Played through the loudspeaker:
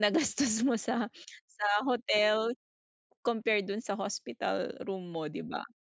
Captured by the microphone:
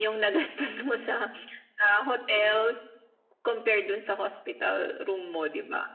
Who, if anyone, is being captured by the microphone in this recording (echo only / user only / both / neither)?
echo only